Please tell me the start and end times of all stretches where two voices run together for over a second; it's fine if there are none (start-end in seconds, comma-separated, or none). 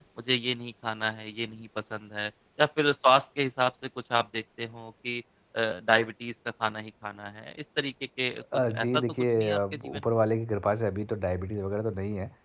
8.7-10.0